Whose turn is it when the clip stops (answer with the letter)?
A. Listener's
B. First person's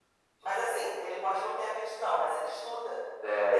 A